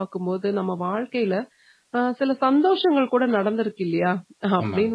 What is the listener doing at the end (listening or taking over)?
listening